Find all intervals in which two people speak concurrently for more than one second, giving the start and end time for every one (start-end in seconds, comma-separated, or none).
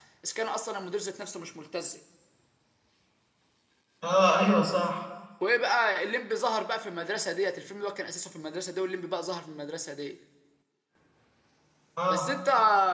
none